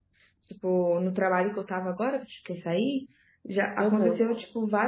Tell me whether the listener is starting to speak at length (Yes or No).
No